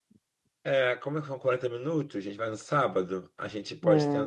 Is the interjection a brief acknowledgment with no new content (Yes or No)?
Yes